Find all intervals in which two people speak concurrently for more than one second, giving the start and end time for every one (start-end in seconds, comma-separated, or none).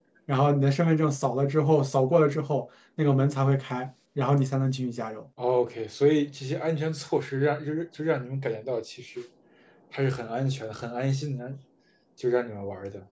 none